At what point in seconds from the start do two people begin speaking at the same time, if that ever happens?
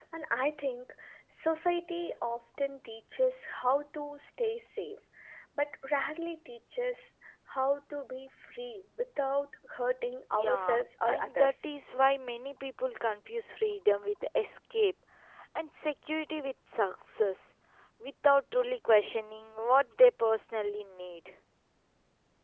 10.3 s

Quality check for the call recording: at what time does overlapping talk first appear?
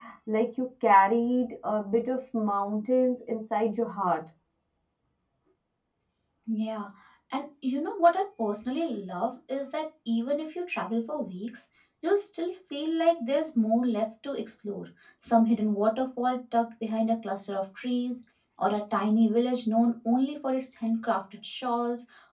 none

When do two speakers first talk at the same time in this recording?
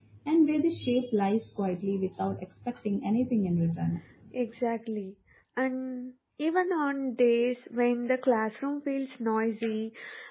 none

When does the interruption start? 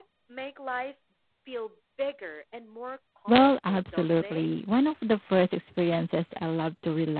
3.3 s

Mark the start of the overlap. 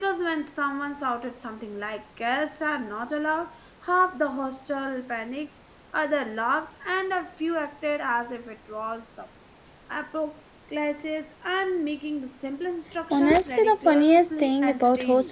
13.1 s

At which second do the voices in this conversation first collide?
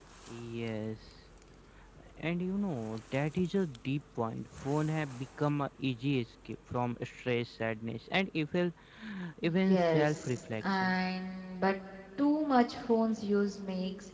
9.4 s

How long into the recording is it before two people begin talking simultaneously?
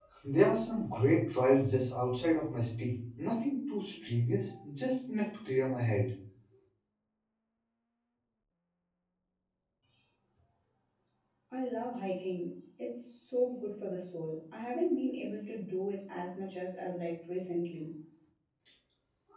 none

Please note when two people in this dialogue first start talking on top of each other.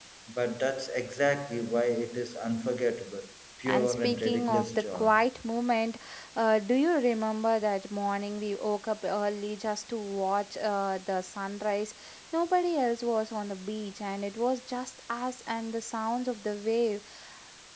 3.7 s

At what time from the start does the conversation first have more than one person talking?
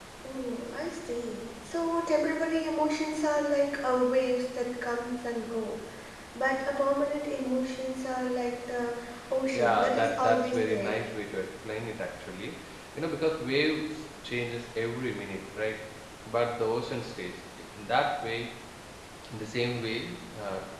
9.5 s

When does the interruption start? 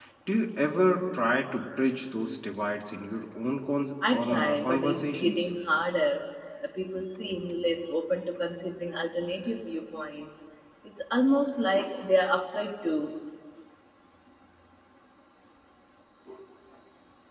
4.0 s

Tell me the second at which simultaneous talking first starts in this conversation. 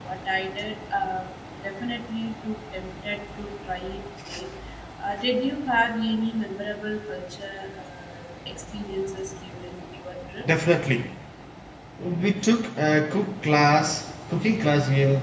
none

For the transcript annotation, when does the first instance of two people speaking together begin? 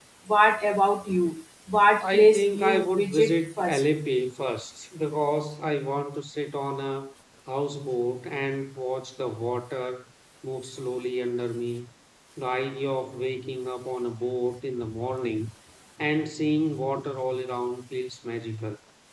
2.0 s

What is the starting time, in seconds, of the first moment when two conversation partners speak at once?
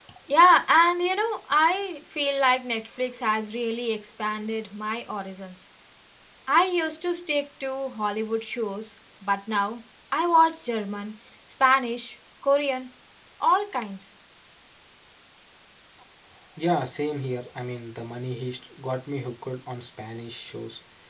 none

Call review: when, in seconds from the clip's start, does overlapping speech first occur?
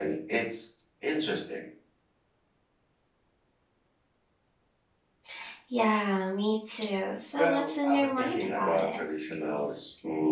7.3 s

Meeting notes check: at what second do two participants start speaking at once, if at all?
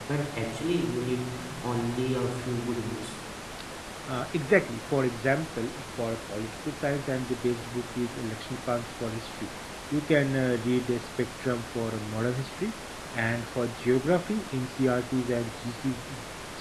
none

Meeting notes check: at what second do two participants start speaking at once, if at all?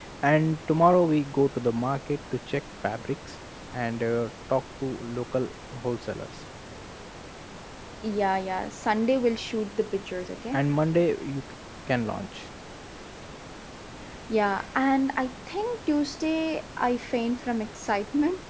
none

